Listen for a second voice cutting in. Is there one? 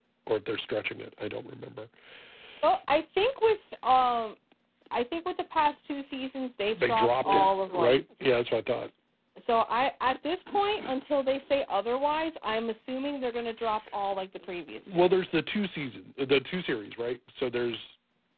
Yes, from 6.7 s

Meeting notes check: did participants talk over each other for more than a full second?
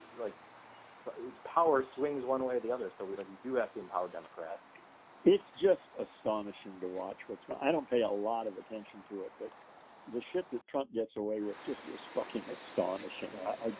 No

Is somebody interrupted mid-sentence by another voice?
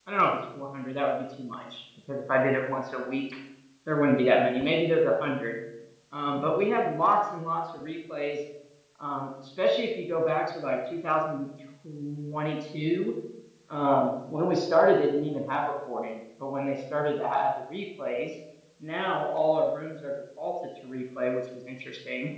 No

